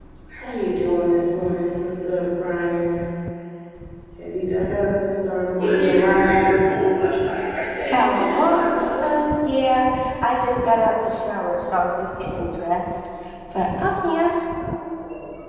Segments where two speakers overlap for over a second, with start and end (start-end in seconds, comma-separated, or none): 7.9-9.1